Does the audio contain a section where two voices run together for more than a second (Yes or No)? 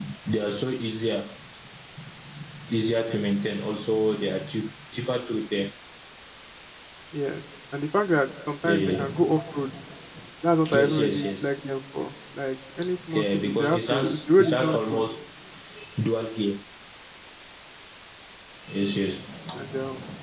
Yes